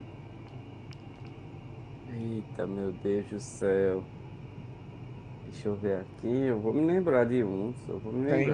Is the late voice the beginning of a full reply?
Yes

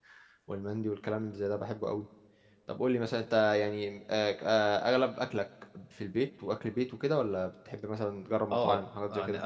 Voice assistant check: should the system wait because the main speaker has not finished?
No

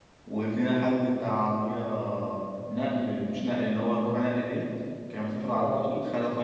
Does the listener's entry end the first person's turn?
No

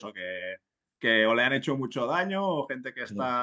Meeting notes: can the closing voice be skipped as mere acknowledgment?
Yes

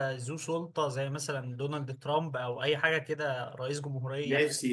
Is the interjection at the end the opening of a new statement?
Yes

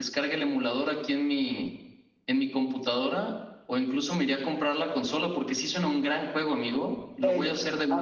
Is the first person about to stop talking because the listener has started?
Yes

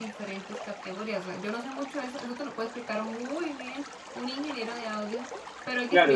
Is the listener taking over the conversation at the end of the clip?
Yes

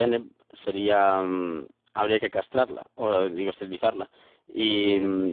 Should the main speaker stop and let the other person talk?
No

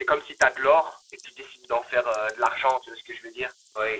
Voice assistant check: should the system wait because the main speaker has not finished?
No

